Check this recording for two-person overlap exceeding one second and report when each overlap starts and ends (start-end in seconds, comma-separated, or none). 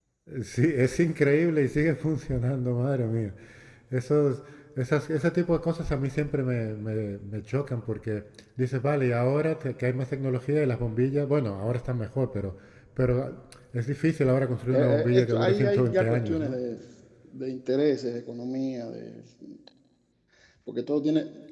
14.7-16.6